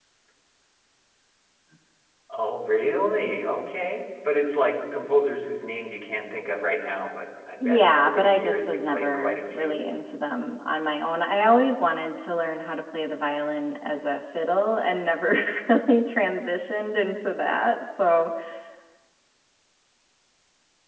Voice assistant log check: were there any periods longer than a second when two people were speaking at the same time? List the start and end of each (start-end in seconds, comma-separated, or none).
7.6-9.8